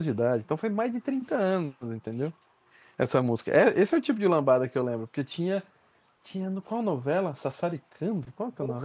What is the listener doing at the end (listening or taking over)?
listening